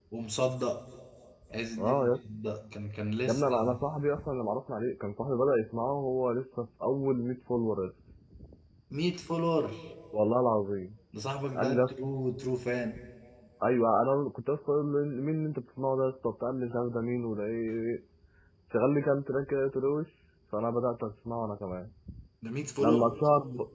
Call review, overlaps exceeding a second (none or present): none